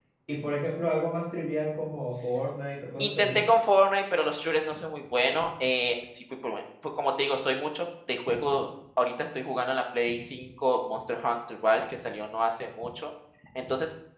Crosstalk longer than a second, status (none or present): none